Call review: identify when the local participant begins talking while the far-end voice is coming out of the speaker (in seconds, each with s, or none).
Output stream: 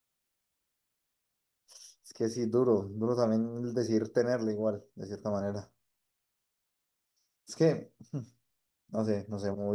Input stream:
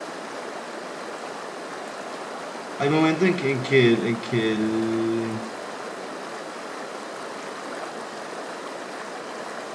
2.8 s